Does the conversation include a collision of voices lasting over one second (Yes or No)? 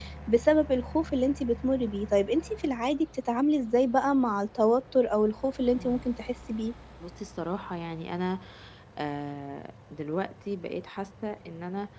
No